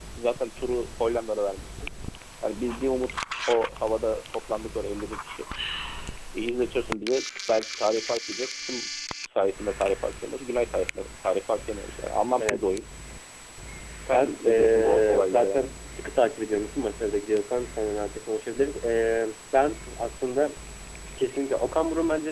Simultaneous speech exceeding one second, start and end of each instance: 14.1-15.7

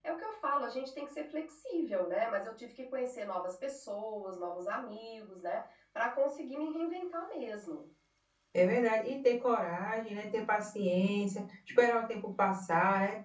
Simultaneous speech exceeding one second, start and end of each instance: none

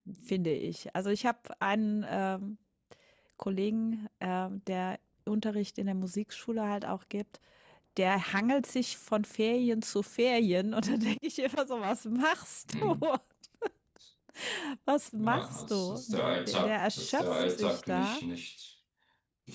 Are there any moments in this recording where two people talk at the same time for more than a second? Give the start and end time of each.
15.2-18.2

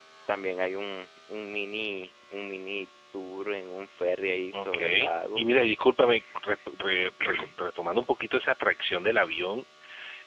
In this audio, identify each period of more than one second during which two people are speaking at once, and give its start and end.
none

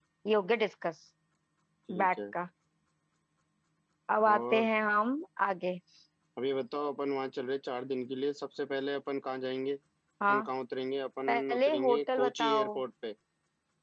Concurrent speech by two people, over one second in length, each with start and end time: 11.3-12.8

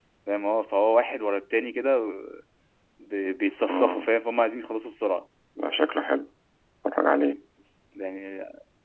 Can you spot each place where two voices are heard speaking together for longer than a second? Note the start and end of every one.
none

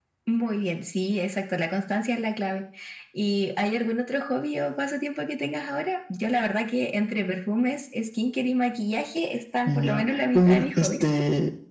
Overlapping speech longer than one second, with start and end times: 9.7-11.1

